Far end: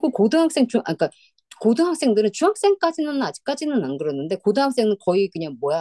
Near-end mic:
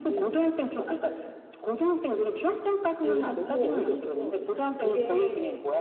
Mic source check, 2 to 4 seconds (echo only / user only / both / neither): both